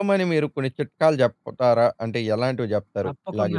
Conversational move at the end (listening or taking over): taking over